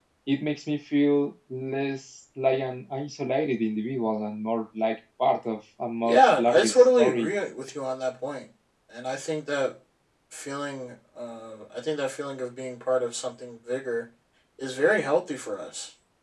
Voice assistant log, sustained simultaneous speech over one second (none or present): present